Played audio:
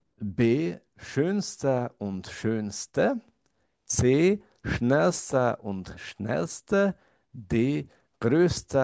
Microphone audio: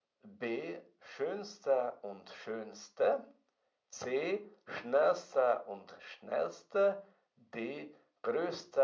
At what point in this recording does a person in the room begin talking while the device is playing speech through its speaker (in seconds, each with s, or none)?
none